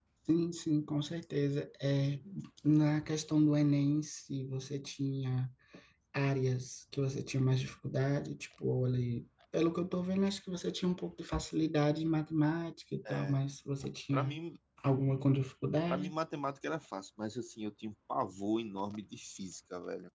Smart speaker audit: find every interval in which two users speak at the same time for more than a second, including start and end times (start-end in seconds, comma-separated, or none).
none